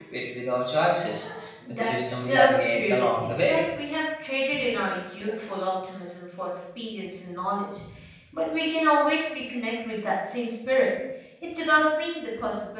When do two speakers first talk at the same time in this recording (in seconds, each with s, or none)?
1.7 s